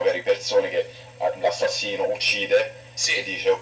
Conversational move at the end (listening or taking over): listening